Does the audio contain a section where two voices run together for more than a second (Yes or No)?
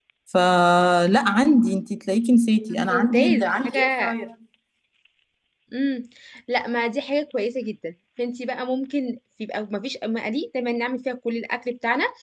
Yes